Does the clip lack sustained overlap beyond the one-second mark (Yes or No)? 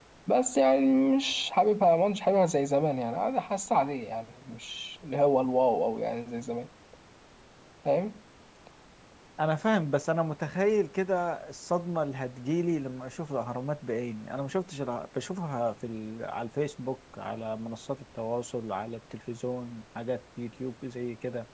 Yes